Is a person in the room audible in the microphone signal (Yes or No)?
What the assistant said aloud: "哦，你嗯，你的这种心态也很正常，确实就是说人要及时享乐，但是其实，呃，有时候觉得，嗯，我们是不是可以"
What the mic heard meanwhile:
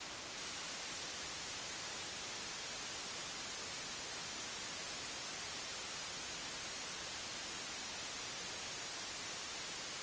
No